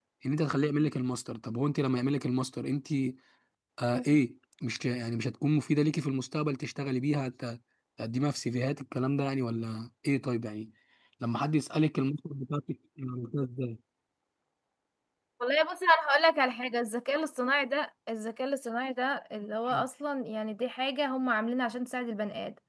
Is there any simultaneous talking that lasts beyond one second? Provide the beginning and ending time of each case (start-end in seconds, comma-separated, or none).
none